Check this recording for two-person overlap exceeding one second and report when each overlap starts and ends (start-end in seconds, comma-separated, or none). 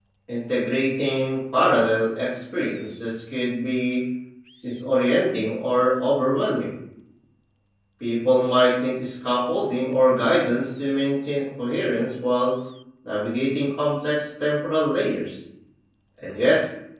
none